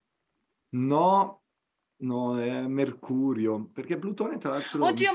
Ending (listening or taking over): taking over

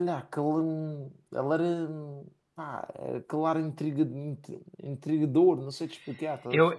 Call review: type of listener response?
taking over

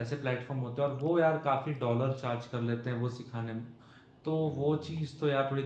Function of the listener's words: listening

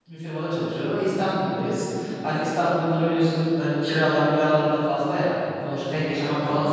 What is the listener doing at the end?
listening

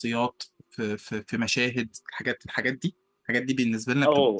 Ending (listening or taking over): taking over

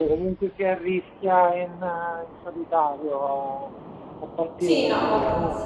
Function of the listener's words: taking over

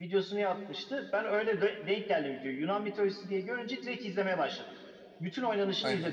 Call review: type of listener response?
listening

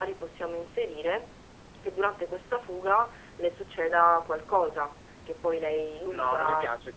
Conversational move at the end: taking over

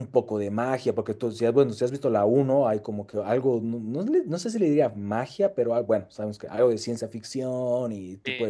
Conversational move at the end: taking over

